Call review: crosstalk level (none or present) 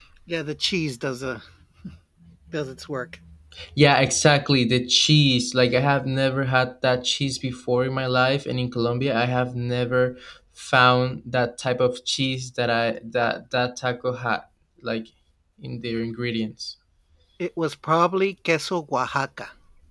none